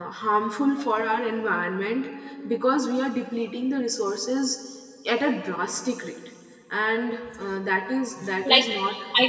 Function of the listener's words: taking over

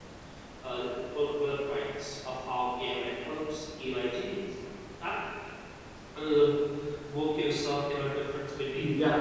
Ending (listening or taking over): taking over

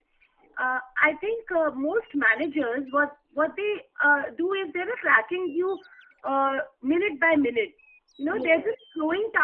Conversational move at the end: listening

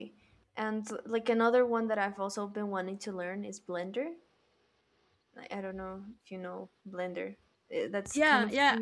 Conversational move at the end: taking over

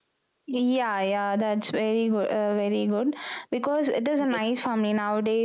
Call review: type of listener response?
listening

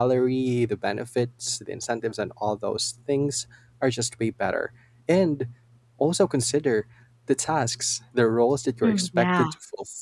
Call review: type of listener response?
listening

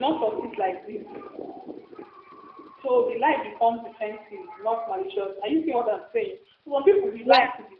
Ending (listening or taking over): listening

